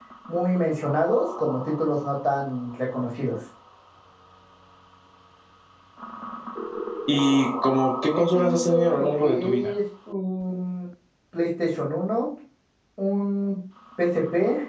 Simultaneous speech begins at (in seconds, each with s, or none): 8.1 s